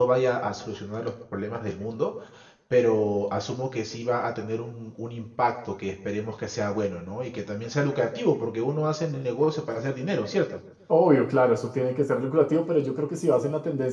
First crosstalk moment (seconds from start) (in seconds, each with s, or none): none